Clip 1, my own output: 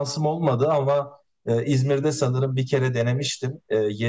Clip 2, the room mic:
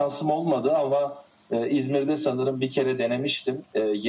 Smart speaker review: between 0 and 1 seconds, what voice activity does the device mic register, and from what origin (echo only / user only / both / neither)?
echo only